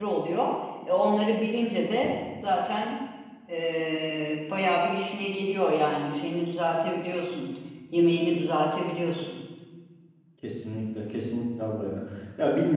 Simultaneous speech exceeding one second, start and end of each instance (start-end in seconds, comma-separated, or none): none